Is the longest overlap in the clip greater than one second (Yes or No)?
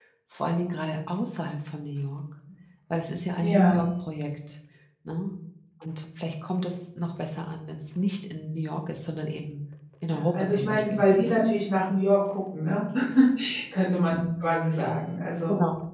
Yes